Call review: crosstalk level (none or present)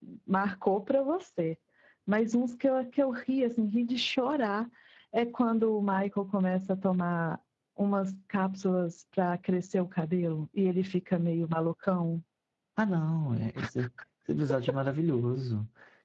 none